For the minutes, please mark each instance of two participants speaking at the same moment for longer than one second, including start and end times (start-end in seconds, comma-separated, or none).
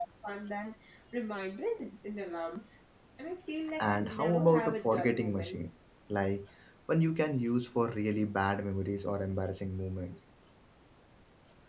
3.8-5.7